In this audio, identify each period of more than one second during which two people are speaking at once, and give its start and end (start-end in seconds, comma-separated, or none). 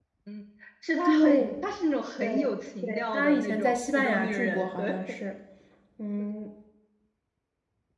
2.8-5.0